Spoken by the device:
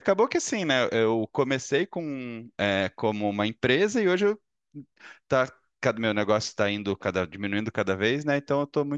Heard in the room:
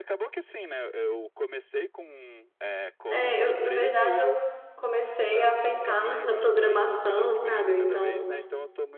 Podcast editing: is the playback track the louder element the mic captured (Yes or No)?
No